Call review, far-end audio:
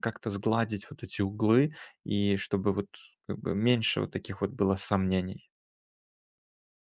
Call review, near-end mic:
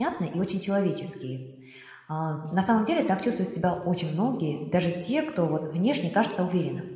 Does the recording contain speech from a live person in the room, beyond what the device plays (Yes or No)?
Yes